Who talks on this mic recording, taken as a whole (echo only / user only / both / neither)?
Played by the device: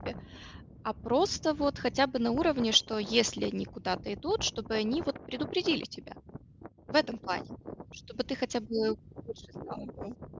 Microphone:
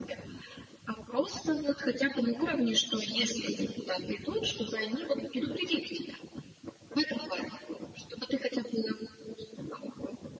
echo only